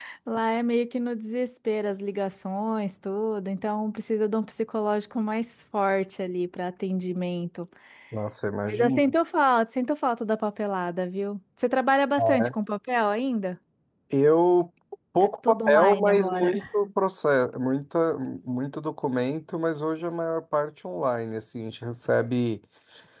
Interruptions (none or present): present